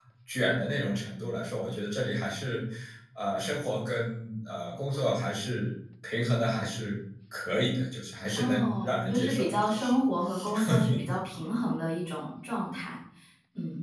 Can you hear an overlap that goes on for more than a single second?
Yes, from 8.3 s

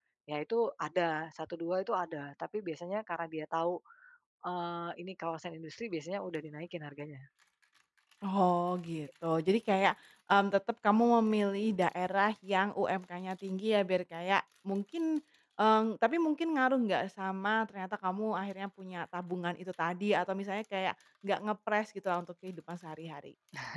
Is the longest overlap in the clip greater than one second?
No

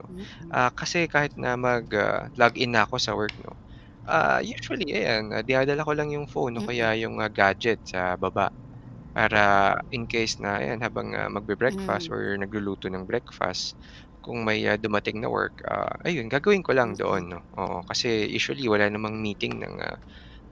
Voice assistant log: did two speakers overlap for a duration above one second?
No

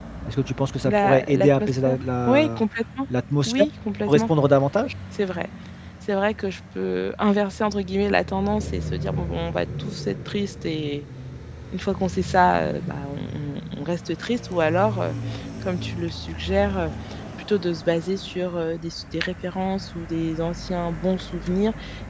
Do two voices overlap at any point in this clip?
Yes, from 0.8 s

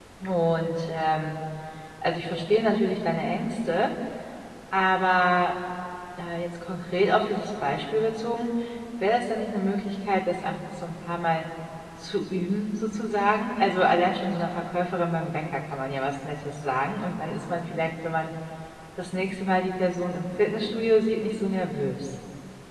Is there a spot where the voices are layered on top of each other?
No

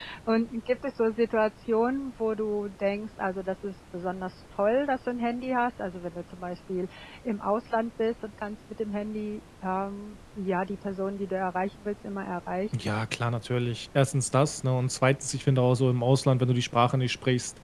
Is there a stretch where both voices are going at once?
No

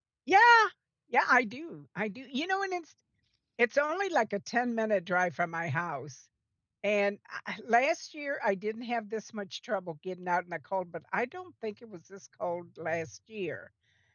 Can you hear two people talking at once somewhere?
No

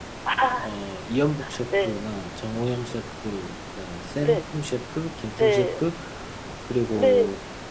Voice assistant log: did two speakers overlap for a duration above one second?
No

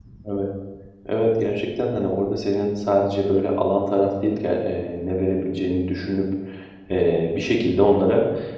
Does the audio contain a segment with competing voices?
No

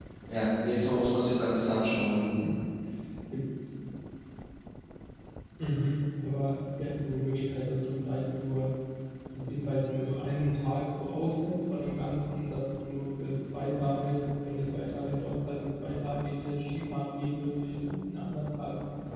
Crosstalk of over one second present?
No

